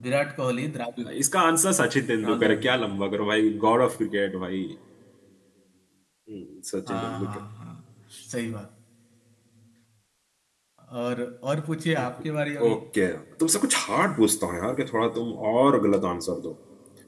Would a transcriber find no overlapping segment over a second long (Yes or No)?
Yes